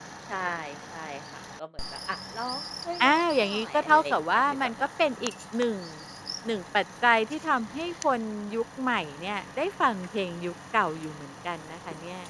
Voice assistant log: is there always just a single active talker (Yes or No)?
No